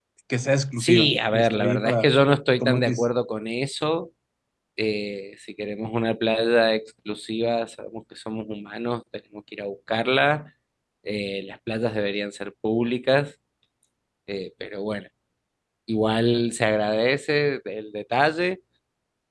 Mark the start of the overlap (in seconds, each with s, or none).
0.8 s